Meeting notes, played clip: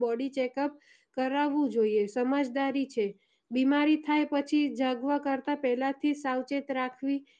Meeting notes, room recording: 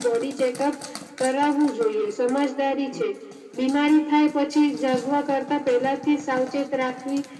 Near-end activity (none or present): none